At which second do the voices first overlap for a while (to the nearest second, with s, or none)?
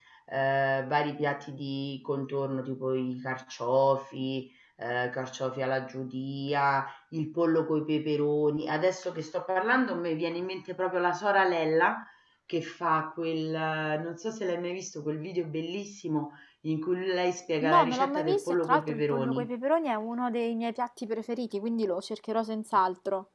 18 s